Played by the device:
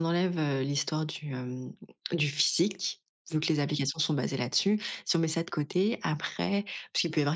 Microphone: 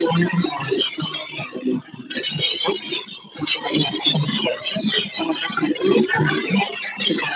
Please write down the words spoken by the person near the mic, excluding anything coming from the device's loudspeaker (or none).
none